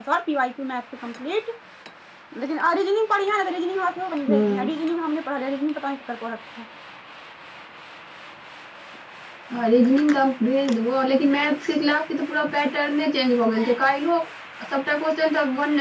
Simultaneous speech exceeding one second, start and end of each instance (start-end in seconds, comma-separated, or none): none